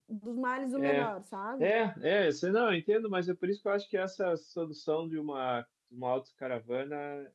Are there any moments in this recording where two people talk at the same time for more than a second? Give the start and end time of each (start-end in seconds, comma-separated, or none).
none